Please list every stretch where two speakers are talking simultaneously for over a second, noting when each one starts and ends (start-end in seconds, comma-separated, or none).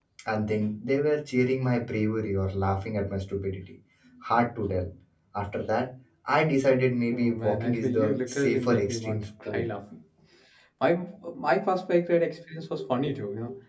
7.1-9.7